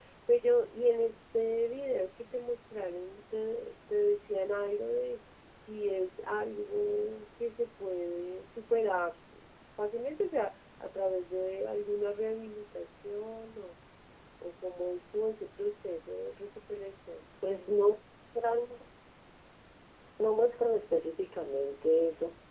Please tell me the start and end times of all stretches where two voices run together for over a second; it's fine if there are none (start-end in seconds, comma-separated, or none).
none